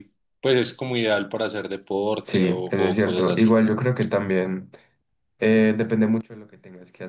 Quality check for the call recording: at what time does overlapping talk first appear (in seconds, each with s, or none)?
2.2 s